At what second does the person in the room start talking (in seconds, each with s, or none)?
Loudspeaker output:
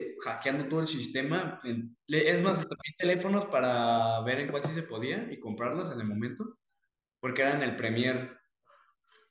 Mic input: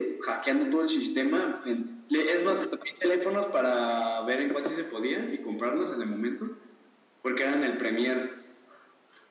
none